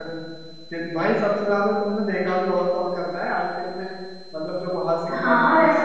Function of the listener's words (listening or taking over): taking over